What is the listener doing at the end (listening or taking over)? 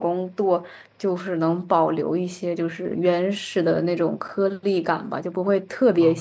listening